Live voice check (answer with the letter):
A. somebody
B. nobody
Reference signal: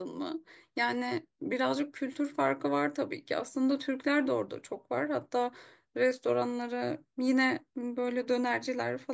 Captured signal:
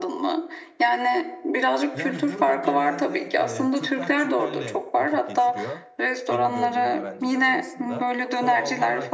A